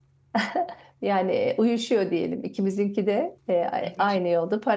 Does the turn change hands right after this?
No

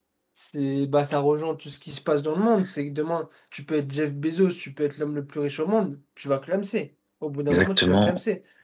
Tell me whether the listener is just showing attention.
No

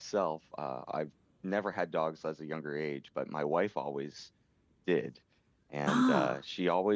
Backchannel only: Yes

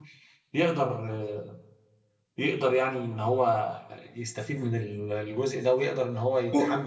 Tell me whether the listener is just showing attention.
Yes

